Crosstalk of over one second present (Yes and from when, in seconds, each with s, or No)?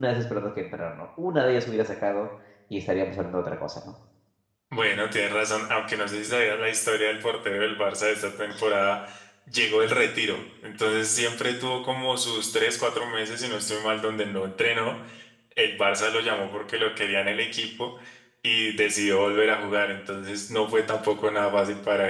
No